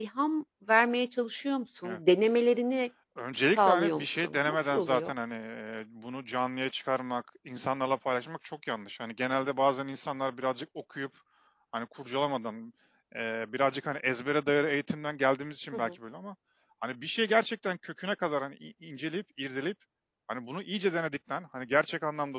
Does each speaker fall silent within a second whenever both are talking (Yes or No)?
No